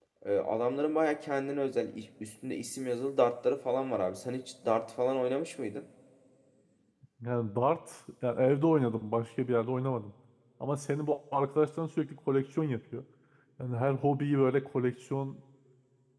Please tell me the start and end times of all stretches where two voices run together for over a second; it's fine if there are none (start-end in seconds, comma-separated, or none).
none